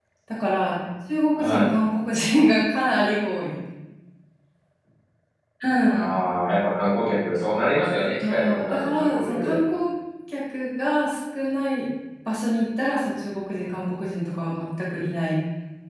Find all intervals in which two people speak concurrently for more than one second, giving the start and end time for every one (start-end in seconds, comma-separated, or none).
8.2-9.6